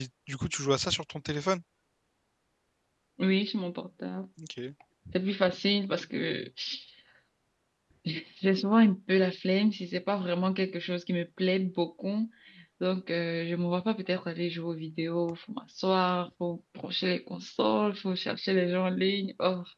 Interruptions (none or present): none